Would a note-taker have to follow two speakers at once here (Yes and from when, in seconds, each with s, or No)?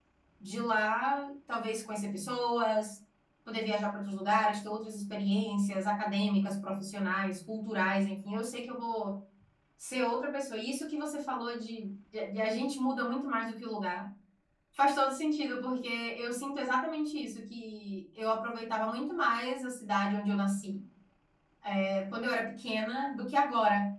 No